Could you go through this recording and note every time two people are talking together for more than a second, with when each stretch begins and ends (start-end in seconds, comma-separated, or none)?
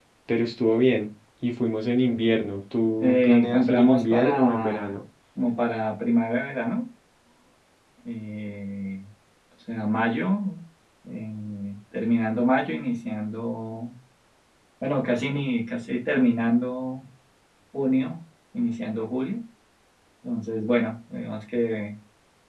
3.0-5.0